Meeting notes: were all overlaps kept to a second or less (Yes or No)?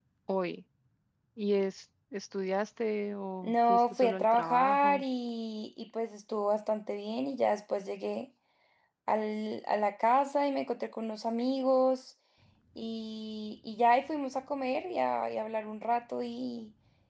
No